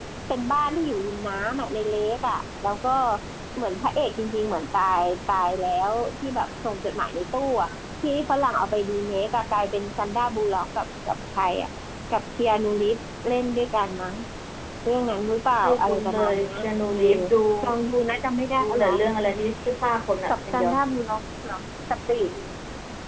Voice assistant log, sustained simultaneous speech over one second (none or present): present